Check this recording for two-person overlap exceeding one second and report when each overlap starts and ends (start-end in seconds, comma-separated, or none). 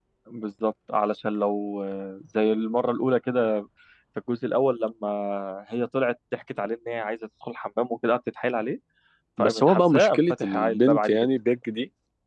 9.4-11.2